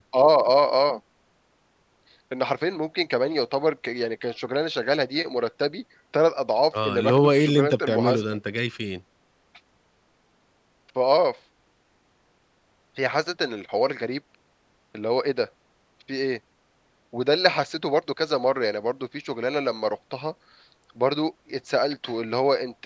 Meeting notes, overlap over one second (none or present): present